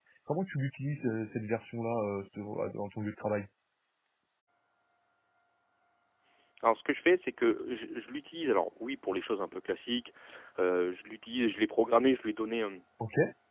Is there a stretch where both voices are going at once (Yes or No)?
No